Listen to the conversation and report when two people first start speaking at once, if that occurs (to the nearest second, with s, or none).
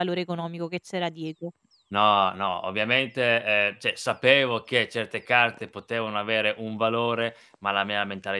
none